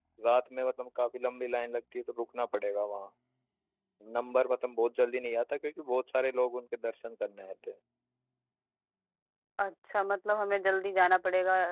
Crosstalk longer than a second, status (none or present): none